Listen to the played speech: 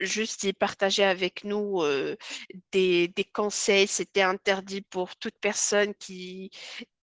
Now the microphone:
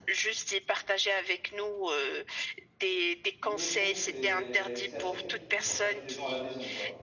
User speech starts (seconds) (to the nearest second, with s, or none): 3 s